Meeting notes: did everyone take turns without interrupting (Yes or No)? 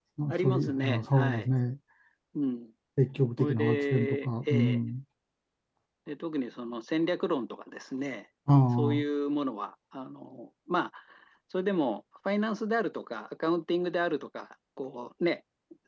No